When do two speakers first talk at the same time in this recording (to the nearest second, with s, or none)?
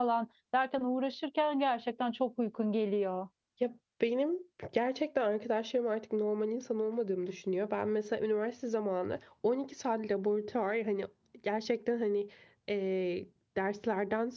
none